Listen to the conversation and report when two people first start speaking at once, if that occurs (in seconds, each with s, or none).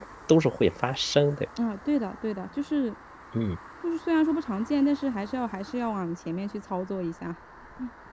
none